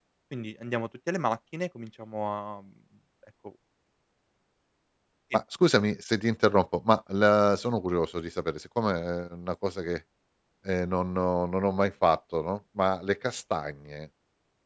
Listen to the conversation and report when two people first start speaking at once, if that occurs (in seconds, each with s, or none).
none